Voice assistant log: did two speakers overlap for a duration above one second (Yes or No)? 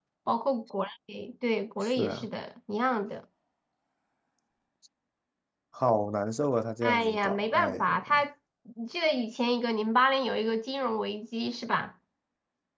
Yes